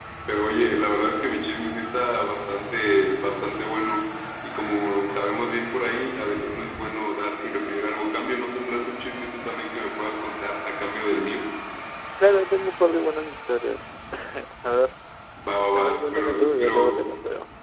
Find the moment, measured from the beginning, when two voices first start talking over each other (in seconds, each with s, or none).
15.8 s